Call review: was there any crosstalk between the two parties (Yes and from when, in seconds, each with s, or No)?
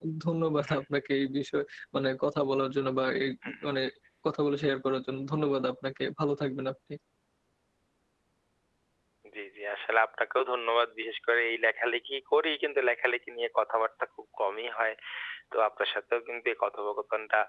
No